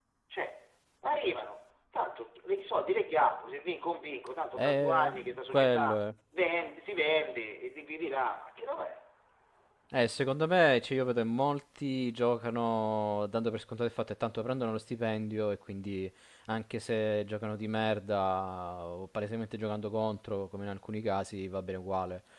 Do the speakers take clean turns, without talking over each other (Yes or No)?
No